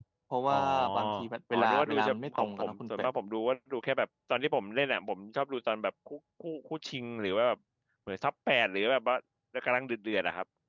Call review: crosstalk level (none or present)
present